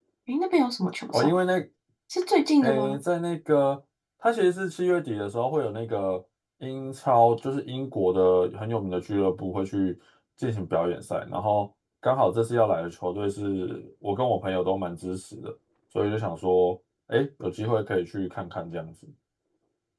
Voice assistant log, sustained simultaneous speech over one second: none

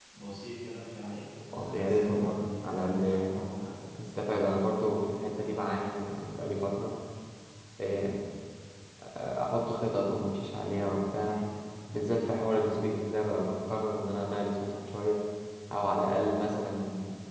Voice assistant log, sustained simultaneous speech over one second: present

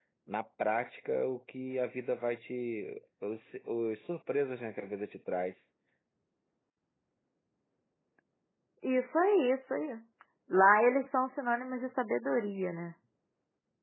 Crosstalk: none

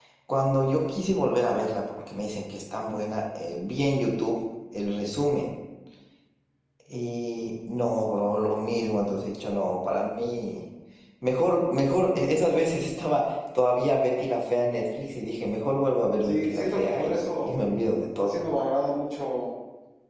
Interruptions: present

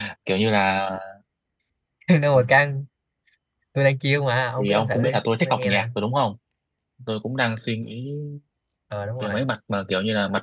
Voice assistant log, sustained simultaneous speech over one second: present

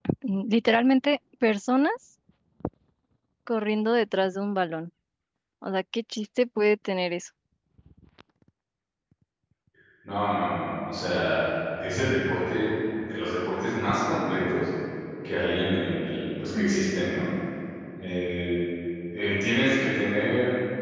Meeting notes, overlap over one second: none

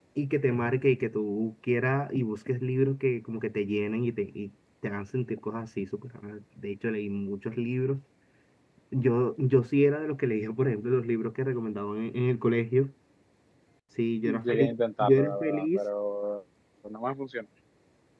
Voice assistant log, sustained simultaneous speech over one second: present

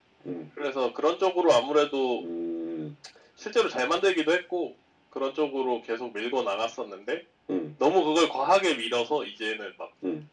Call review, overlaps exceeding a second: none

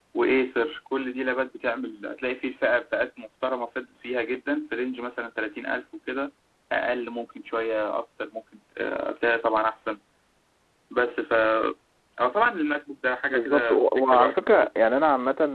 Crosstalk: present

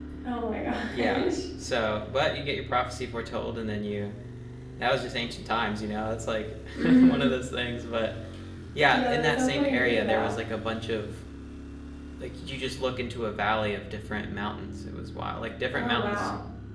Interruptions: present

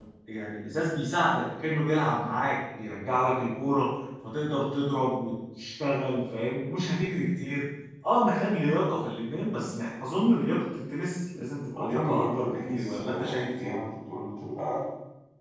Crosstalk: present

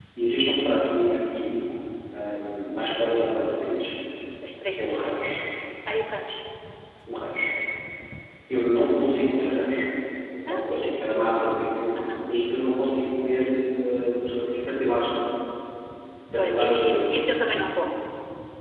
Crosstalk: present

